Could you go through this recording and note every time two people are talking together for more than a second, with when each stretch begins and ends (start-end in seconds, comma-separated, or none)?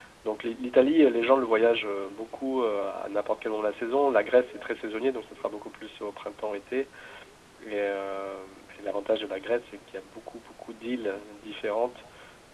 none